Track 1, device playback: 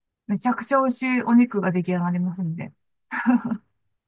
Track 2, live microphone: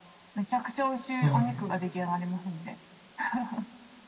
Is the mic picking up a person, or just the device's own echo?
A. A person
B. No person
A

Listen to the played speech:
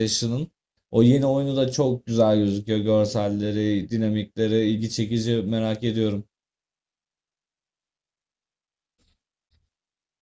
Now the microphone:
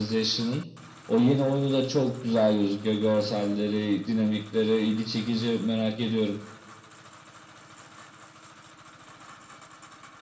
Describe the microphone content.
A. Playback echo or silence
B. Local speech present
A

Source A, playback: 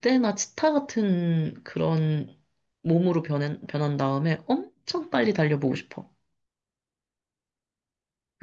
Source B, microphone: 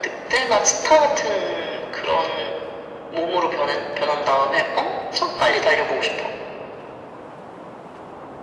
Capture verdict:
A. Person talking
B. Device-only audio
B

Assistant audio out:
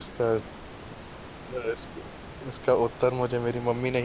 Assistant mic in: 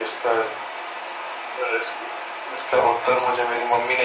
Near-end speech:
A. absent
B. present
B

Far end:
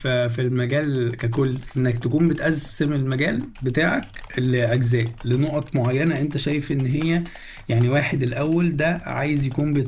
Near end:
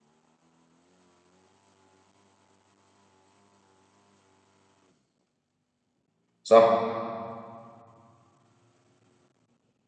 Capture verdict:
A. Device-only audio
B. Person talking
B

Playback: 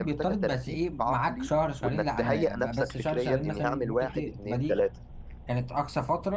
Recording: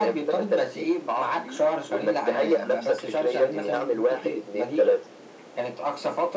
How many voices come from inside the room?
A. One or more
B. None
B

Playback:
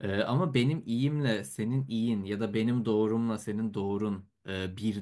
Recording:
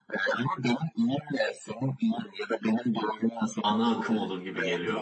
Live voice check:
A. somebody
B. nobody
A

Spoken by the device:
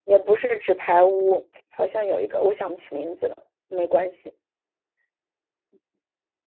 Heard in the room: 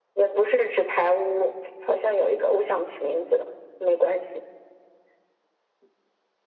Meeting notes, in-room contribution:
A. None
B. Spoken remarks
A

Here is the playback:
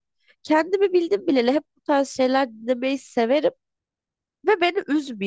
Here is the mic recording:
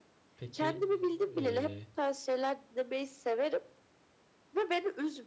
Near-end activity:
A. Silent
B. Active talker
B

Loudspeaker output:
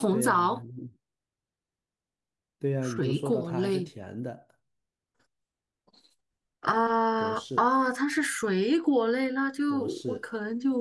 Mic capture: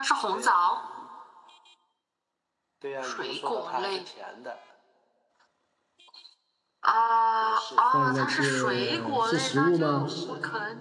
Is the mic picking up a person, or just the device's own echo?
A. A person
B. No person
A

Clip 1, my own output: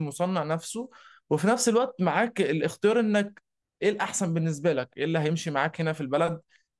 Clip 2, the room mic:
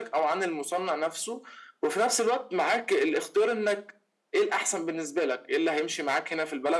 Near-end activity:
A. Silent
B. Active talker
A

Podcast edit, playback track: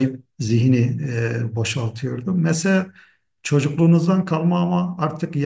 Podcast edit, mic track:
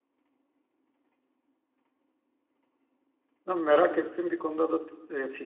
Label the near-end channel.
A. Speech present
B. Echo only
A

